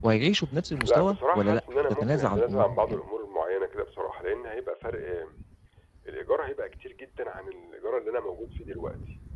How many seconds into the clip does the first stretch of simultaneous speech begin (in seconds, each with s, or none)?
0.8 s